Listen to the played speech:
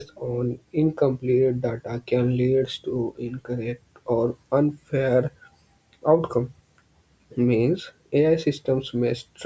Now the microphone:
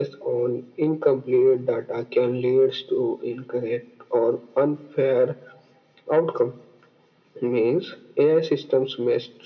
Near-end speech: none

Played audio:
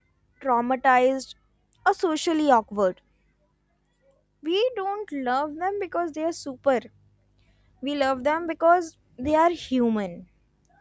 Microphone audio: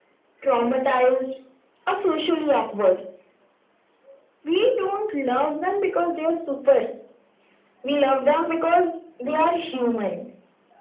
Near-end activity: none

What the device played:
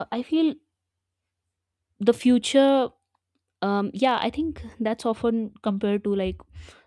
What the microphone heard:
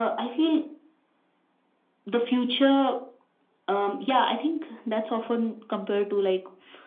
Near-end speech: none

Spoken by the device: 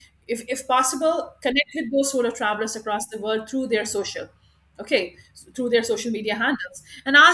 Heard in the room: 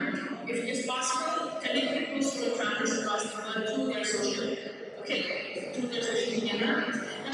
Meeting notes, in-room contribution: none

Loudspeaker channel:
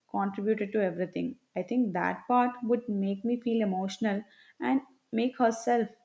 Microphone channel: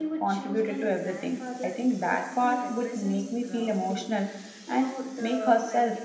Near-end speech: present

